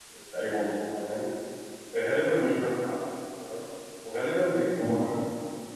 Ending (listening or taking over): listening